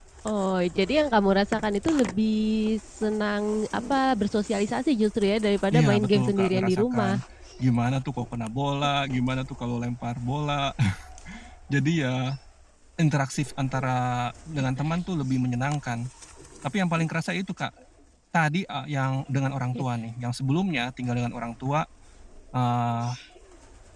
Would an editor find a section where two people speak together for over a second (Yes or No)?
Yes